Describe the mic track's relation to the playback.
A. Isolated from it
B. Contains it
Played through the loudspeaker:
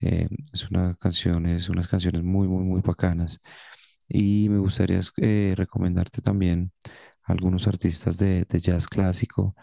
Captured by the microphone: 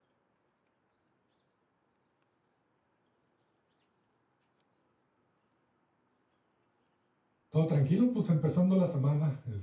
A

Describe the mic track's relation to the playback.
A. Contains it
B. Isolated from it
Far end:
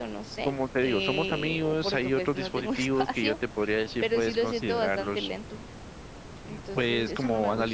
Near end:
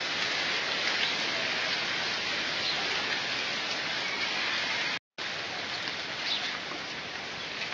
B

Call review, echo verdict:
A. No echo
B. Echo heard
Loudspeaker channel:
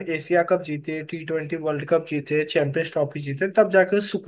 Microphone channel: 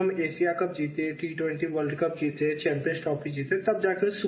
B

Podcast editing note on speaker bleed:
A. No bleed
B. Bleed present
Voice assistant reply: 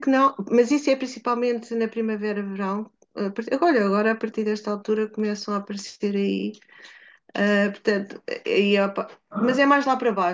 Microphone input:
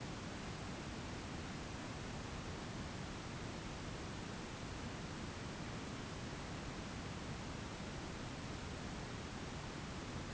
A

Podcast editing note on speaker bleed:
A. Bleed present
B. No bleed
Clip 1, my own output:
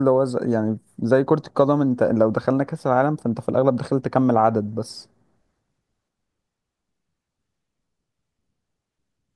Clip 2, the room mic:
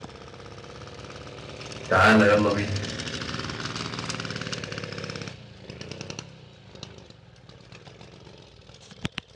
B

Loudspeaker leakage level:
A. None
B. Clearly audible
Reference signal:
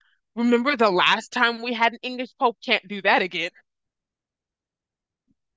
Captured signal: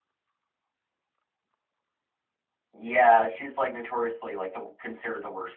A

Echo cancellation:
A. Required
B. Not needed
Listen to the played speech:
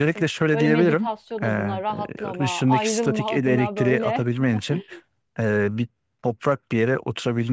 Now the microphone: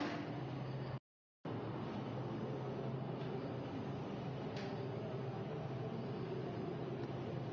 B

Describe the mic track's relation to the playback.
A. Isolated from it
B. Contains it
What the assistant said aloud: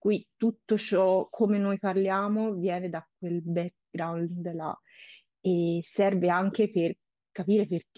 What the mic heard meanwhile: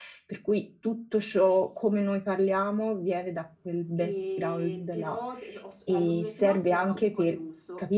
B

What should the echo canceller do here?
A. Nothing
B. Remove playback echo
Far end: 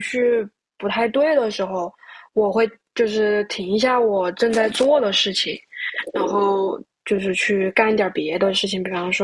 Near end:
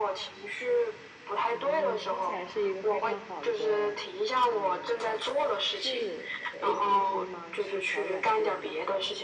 B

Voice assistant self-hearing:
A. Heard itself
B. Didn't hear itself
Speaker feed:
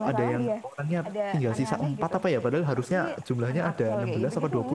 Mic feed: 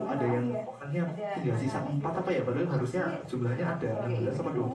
A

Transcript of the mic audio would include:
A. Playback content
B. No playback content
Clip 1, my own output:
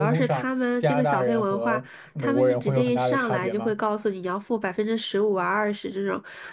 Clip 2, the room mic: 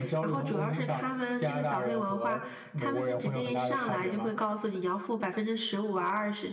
A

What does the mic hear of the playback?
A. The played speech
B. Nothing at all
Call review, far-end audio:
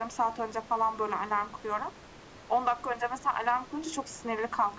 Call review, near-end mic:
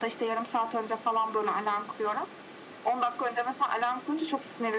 A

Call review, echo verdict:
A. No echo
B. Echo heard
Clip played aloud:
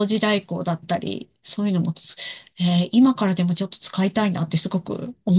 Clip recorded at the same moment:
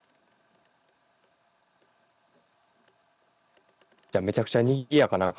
A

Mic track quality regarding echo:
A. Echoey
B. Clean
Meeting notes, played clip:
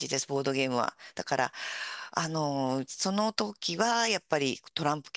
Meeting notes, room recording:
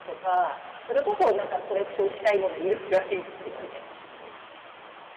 B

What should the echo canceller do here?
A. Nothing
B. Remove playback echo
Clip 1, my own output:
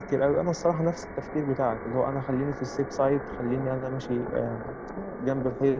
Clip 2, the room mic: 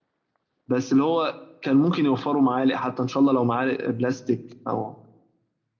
A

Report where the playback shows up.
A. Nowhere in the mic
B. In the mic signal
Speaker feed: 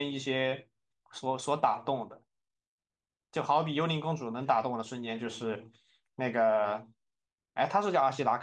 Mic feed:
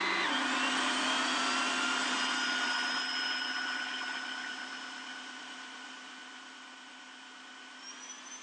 A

